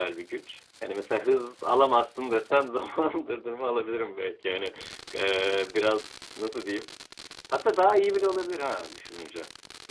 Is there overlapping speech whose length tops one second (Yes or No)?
No